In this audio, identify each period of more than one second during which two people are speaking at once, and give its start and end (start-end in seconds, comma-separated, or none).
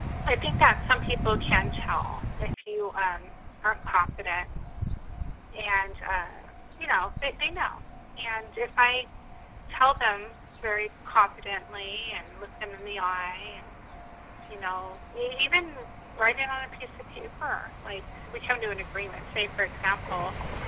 none